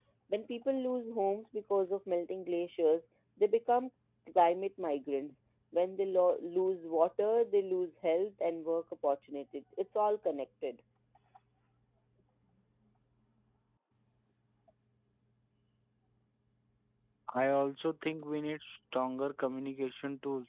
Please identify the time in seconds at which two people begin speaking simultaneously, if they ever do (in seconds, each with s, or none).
none